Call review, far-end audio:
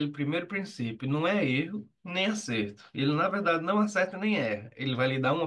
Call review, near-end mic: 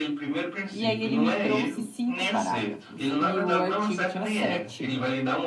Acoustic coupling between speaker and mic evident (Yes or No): Yes